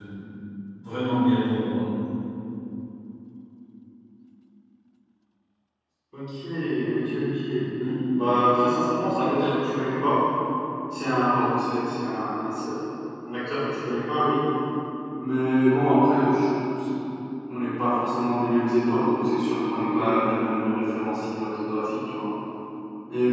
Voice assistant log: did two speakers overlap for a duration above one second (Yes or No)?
No